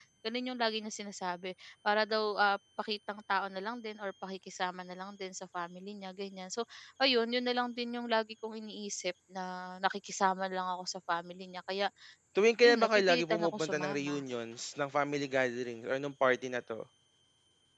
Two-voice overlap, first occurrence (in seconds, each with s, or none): 12.6 s